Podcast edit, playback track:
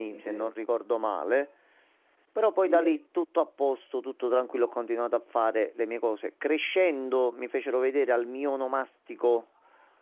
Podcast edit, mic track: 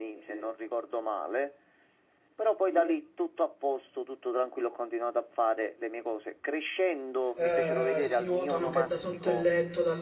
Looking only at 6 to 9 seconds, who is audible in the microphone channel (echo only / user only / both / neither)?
both